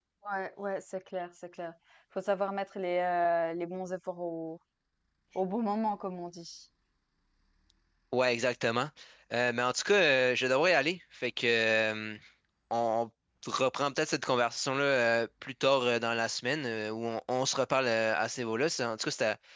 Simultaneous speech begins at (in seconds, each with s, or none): none